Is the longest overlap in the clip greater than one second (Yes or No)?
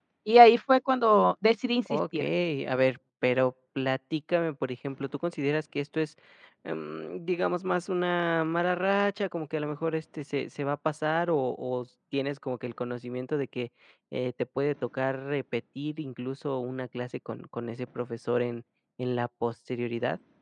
No